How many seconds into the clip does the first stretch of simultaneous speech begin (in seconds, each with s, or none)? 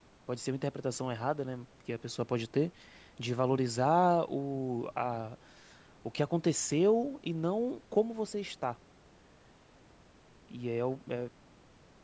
none